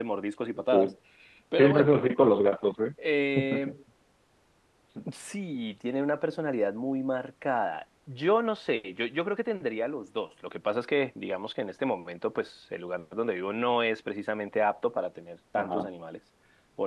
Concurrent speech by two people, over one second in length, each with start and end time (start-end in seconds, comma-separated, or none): none